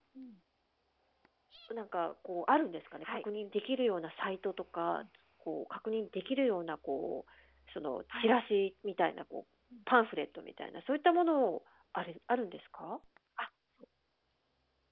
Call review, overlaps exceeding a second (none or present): none